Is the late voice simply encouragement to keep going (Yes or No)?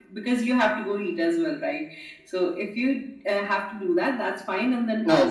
No